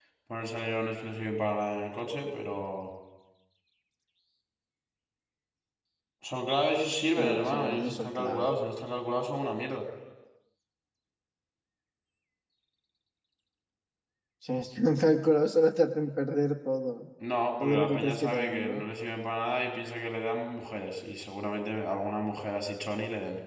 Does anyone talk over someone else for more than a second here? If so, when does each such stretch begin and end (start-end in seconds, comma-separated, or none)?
7.2-8.5, 17.6-18.8